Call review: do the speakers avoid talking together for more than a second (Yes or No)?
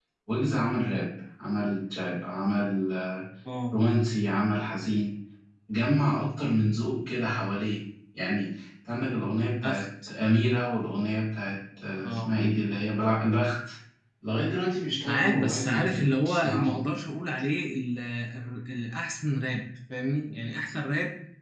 No